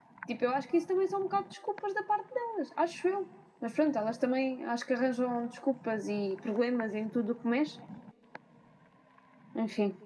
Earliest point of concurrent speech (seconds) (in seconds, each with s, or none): none